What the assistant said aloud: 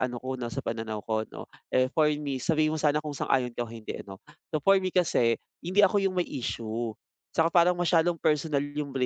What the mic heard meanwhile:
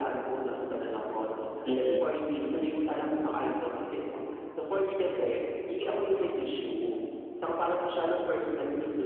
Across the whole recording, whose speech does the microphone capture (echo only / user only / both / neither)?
both